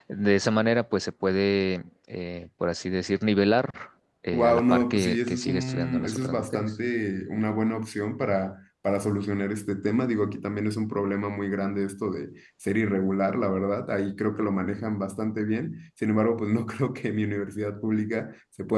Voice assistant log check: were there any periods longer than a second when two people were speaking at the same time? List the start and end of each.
4.3-6.7

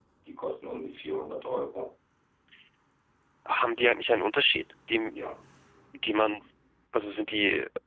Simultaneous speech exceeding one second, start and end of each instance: none

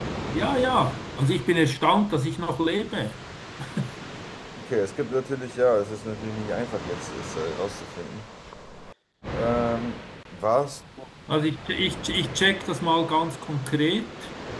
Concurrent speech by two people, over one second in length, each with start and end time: none

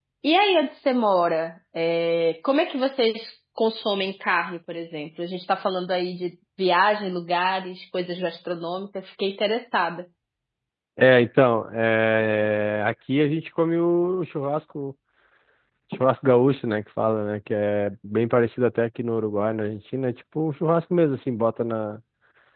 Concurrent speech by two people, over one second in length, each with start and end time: none

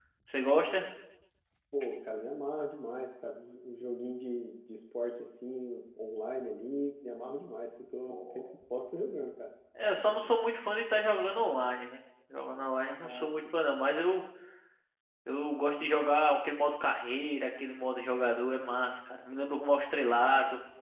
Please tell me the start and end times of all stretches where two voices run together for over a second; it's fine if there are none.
none

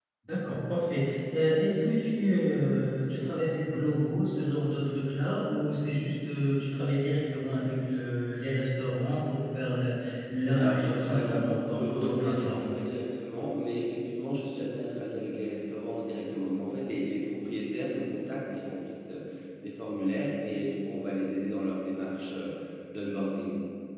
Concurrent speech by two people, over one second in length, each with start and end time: 10.6-12.7

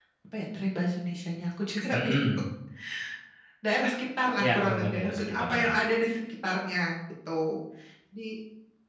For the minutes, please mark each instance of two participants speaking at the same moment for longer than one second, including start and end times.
4.4-5.7

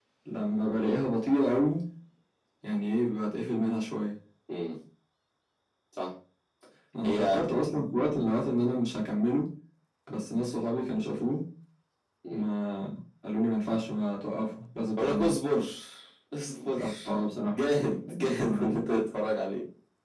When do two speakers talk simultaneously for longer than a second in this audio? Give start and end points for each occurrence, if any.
none

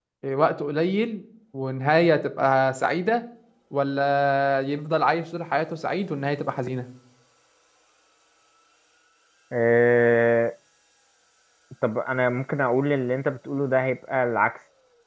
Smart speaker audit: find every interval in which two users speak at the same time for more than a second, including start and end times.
none

